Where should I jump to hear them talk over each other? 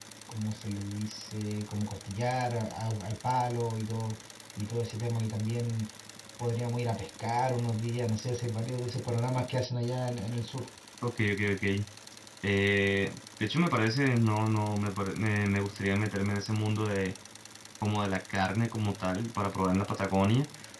none

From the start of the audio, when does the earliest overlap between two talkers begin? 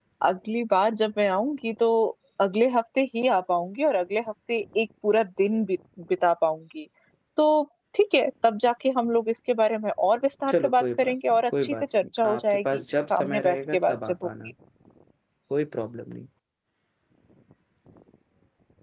10.5 s

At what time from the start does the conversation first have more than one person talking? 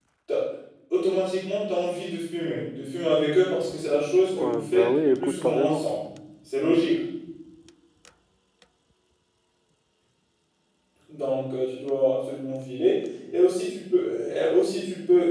4.3 s

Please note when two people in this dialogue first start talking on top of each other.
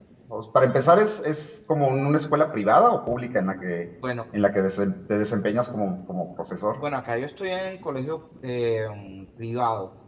none

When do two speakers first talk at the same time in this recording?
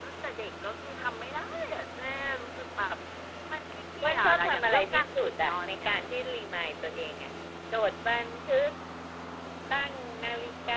4.0 s

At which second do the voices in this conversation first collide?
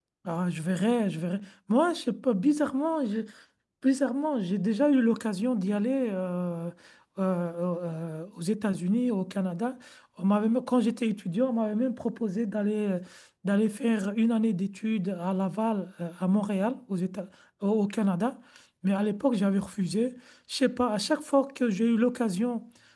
none

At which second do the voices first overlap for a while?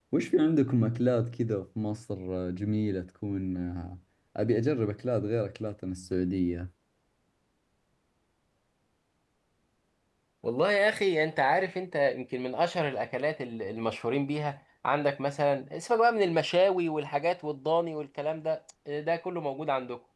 none

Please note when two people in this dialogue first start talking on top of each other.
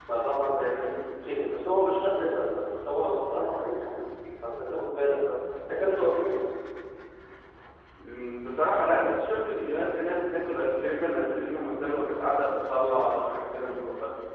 none

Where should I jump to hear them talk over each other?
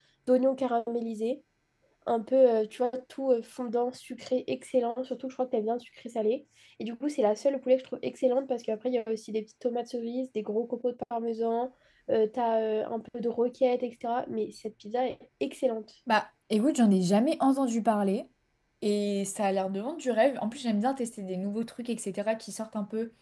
none

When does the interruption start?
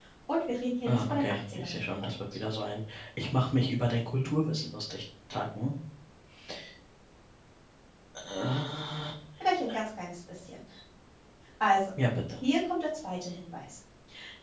0.8 s

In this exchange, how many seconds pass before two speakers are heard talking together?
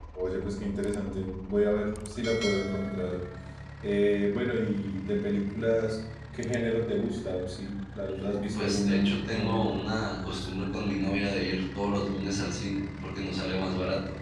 8.3 s

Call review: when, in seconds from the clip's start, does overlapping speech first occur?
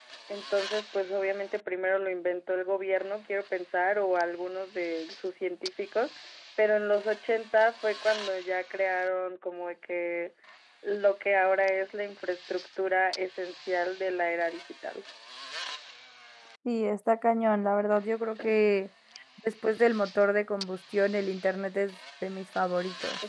none

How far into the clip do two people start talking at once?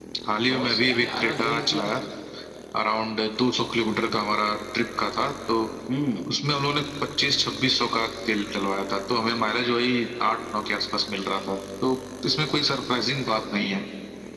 0.5 s

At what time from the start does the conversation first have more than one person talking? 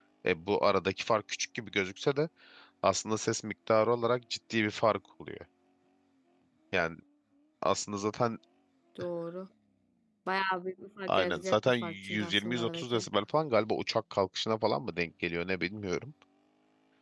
11.1 s

